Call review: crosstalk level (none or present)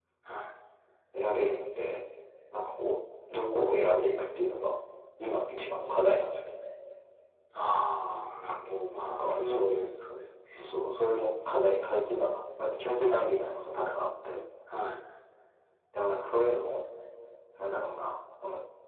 present